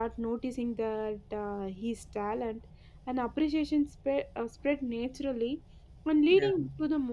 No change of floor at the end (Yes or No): Yes